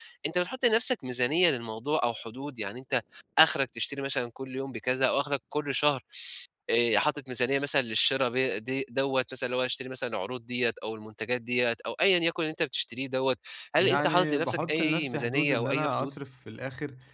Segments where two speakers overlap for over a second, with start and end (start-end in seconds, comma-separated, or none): 13.8-16.1